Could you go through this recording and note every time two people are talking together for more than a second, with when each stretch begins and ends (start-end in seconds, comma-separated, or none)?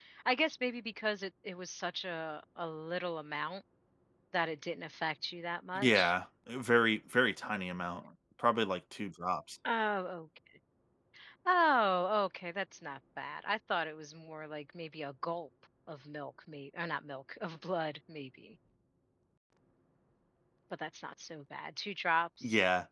none